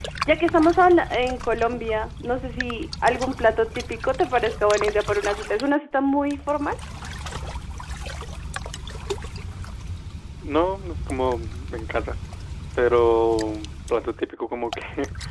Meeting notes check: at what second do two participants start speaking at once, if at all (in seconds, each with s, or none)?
none